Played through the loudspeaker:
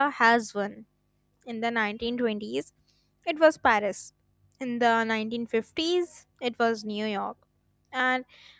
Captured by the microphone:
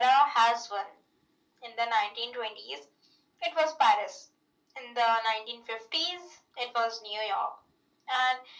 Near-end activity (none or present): none